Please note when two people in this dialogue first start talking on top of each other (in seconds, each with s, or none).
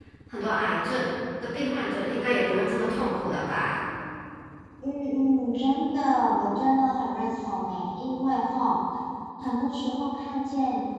none